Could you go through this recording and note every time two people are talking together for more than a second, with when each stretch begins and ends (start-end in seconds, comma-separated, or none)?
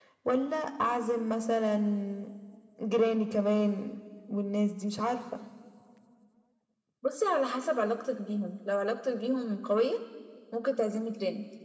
none